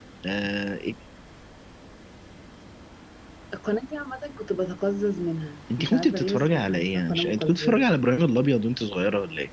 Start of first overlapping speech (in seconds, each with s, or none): 5.7 s